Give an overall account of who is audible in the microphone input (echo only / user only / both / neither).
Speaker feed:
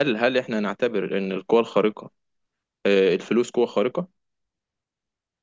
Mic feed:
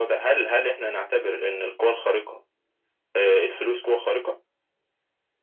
echo only